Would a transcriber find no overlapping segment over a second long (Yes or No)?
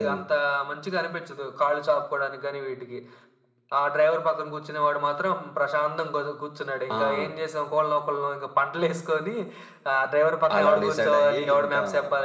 No